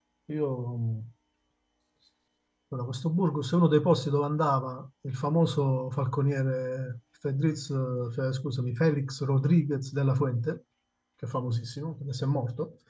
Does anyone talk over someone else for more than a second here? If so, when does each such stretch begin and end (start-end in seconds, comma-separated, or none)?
none